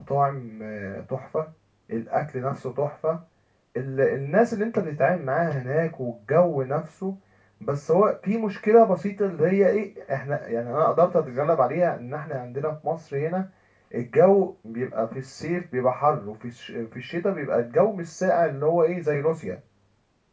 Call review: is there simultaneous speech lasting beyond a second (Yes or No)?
No